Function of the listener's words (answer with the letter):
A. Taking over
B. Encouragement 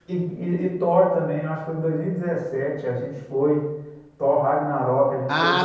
A